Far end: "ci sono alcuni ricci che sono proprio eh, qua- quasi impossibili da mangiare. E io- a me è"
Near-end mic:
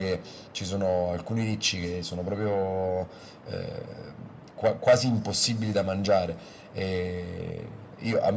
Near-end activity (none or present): none